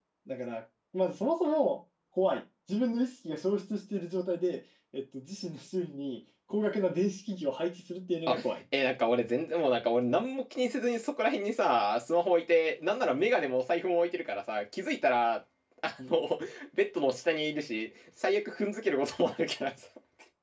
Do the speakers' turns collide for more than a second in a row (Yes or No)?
No